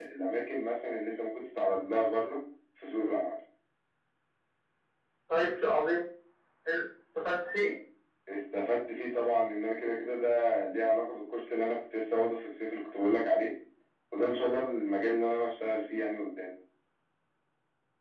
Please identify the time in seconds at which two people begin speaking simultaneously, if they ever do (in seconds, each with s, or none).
none